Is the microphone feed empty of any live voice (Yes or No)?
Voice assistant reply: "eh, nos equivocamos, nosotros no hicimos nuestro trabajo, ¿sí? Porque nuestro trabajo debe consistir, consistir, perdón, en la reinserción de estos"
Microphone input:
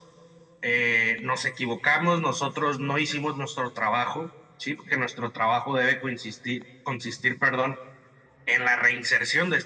Yes